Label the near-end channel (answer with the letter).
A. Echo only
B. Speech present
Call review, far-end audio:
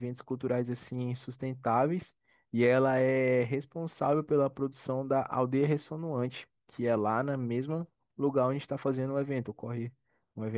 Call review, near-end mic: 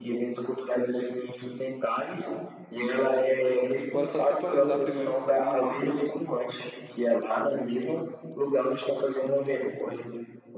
B